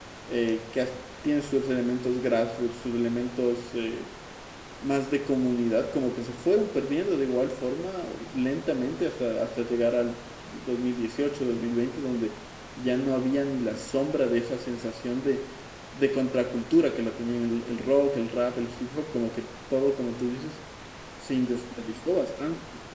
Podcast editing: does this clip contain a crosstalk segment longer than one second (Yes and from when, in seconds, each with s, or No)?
No